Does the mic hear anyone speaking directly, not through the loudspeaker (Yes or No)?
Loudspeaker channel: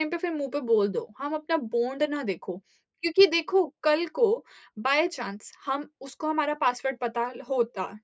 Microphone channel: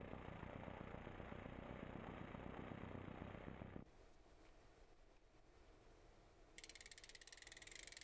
No